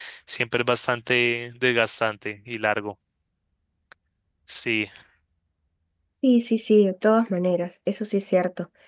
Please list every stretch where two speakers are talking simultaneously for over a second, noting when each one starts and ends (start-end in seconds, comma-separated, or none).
none